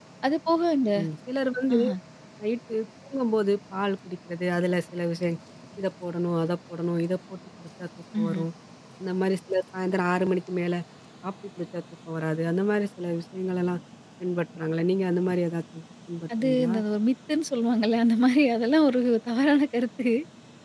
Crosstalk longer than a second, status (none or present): none